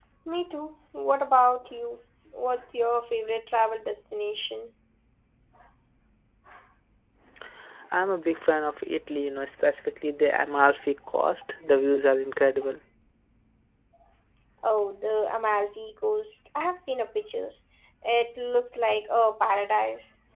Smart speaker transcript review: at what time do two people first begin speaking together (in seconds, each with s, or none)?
none